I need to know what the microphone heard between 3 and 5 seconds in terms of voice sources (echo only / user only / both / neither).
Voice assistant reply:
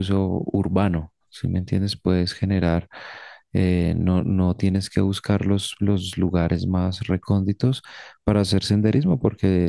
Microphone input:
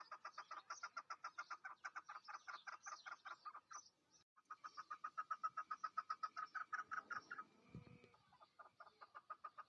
neither